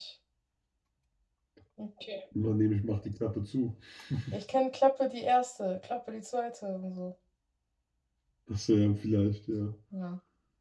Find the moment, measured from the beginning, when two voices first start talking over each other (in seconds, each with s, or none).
none